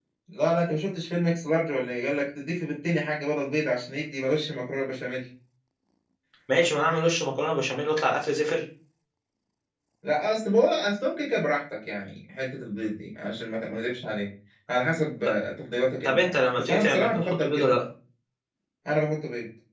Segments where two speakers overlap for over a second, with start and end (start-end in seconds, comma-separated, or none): 16.0-17.7